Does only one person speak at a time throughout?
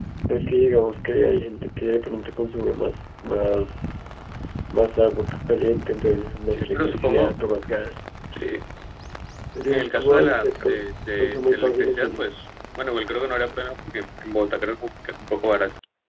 No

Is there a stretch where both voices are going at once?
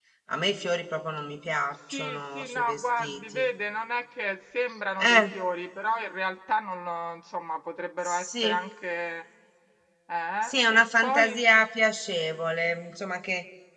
Yes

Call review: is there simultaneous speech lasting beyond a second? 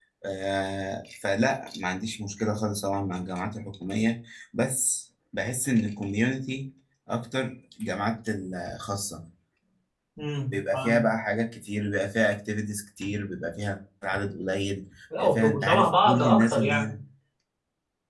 Yes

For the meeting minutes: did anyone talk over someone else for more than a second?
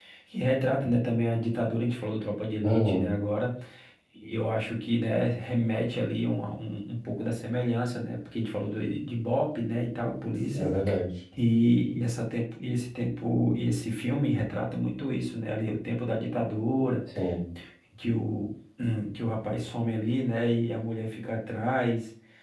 No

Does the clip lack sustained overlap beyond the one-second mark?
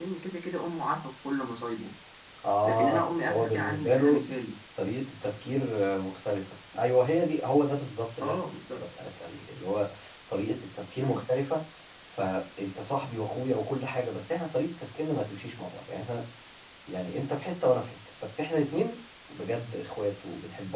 No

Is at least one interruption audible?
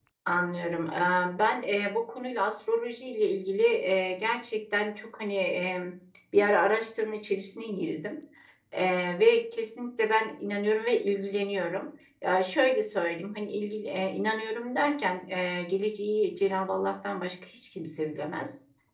No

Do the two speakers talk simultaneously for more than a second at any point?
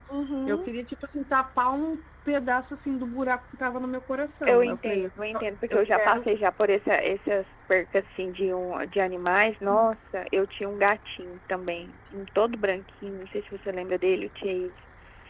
Yes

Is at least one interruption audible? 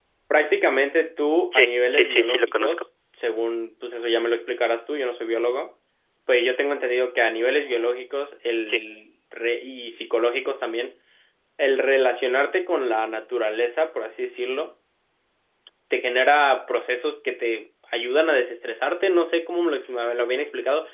Yes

